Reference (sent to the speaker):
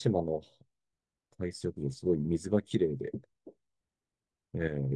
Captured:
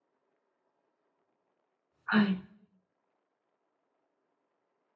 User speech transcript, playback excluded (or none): はい。